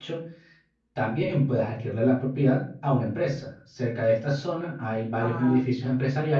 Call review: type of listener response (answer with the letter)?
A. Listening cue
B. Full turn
A